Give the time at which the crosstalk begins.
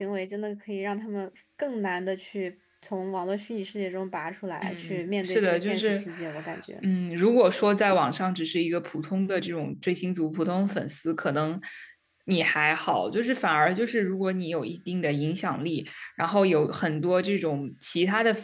5 s

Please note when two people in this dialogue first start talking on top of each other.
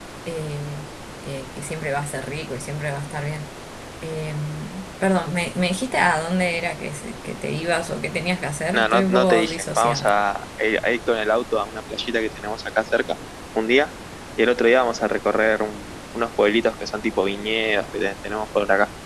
9 s

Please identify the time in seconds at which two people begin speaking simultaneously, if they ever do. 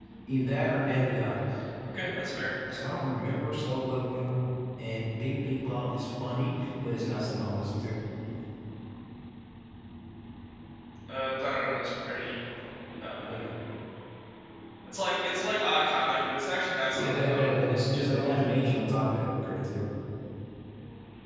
17 s

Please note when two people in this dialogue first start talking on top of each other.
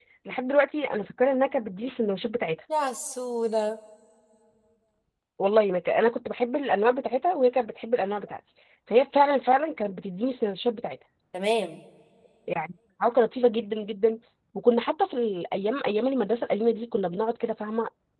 none

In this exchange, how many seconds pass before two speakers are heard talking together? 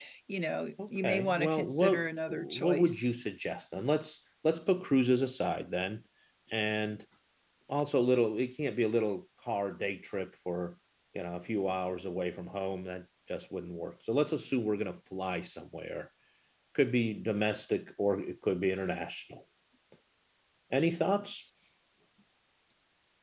1 s

